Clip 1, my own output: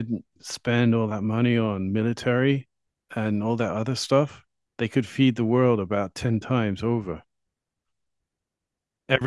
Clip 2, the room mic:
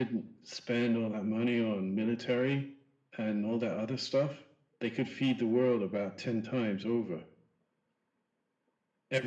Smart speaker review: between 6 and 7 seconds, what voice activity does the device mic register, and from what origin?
echo only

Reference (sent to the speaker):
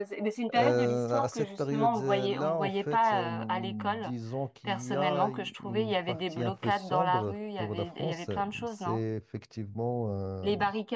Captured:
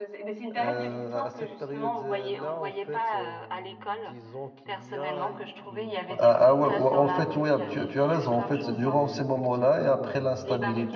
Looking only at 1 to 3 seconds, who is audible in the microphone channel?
echo only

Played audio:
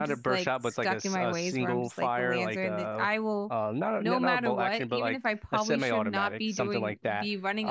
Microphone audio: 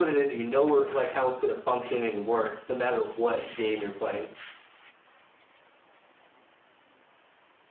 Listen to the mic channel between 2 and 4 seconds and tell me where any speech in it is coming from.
user only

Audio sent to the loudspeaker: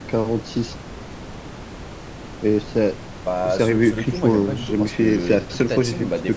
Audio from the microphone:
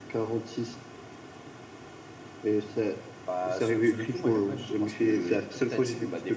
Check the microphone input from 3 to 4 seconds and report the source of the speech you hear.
echo only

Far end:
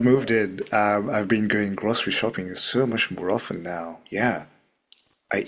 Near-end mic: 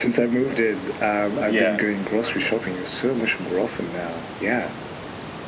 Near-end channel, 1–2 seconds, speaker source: both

